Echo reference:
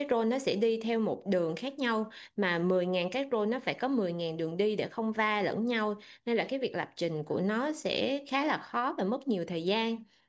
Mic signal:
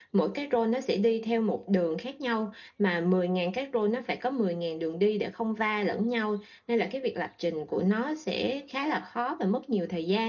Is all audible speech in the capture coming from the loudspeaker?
Yes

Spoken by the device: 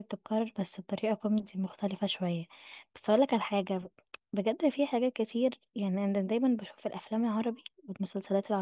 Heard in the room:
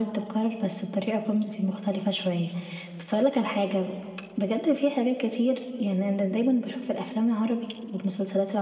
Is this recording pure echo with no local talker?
Yes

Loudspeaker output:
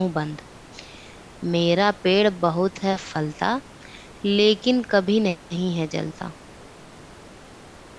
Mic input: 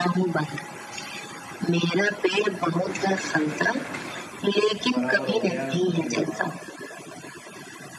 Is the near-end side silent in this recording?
No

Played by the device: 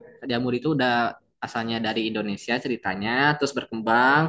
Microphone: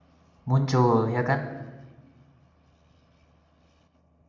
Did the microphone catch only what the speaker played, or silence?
No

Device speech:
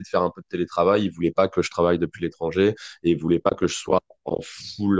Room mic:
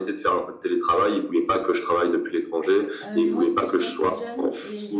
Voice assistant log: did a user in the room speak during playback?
Yes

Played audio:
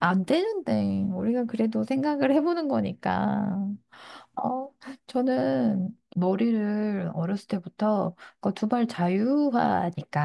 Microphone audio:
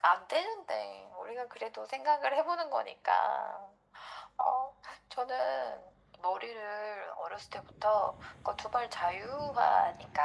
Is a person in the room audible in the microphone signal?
No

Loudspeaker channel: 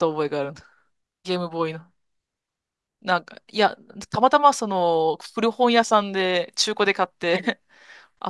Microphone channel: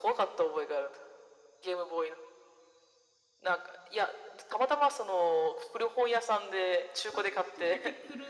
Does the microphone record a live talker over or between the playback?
Yes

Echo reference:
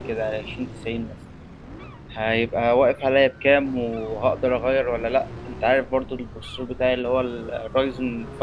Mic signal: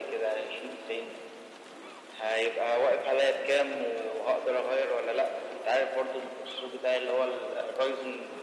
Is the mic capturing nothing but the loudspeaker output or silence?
Yes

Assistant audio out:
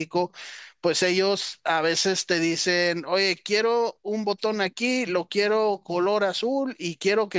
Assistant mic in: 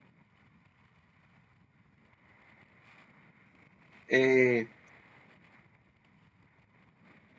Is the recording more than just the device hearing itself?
Yes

